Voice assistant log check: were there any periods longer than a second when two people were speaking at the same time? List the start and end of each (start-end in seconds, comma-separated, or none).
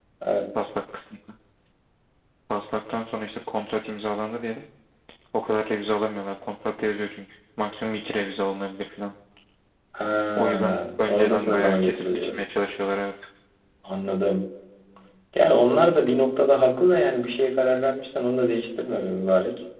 10.3-12.4